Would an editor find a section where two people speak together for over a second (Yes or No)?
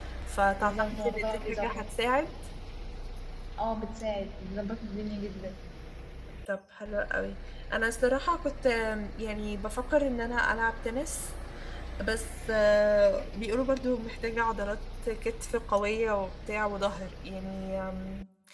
Yes